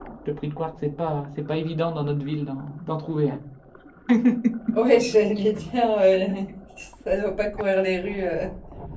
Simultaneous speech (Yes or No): No